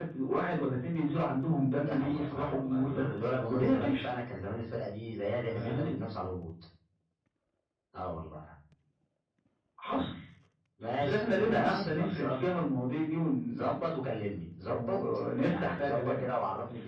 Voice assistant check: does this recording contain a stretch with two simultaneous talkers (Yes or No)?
Yes